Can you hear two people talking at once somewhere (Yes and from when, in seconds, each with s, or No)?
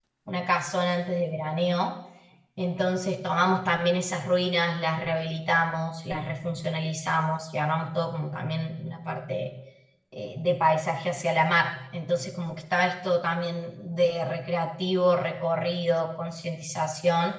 No